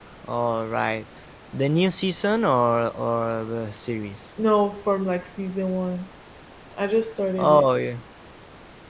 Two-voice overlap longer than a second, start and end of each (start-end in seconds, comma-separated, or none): none